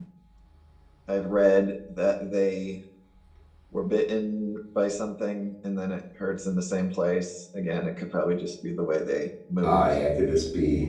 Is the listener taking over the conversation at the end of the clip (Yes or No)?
Yes